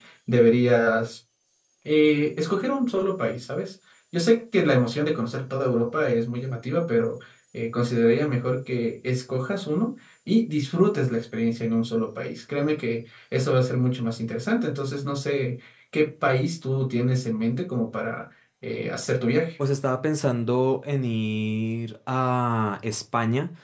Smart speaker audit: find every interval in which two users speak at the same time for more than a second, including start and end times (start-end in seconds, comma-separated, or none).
none